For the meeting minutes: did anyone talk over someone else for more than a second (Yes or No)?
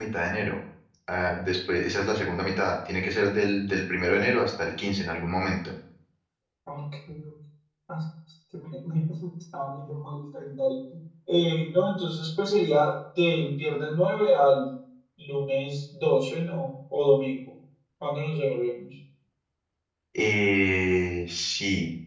No